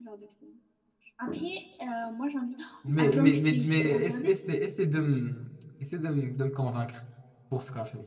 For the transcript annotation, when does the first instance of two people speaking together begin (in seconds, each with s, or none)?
3.0 s